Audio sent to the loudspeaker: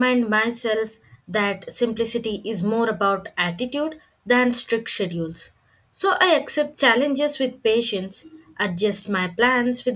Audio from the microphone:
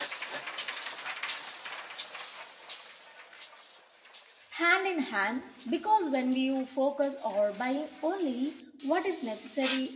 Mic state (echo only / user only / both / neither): user only